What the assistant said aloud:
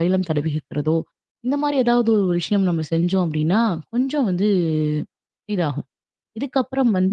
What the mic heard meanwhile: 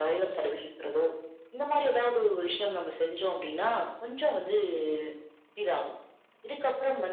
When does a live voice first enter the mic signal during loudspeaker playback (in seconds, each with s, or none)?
none